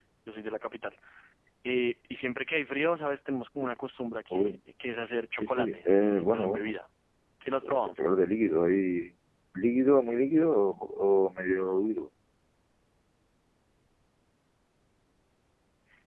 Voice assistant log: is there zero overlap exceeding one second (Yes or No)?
No